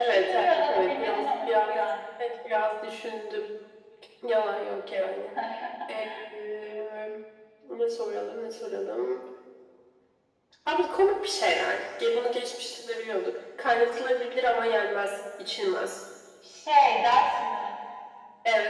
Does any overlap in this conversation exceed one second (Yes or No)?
Yes